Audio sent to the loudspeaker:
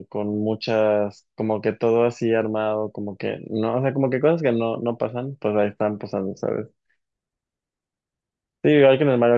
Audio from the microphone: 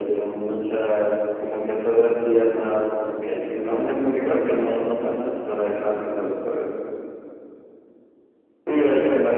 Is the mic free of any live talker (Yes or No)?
Yes